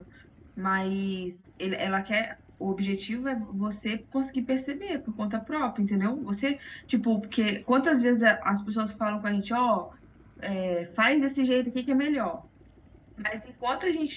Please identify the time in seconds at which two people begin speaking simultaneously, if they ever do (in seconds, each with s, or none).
none